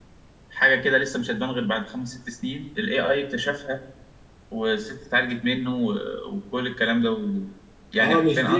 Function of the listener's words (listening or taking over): taking over